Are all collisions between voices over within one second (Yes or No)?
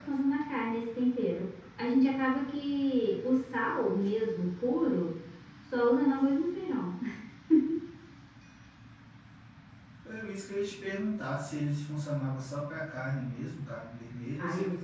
Yes